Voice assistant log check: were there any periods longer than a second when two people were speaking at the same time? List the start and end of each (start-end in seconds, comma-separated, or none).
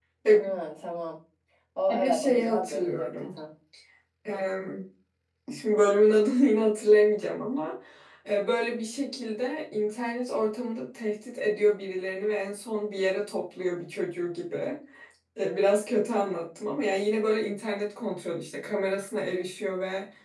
1.9-3.4